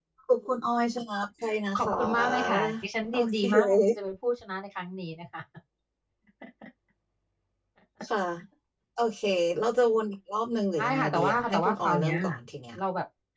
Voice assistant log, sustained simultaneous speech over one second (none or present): present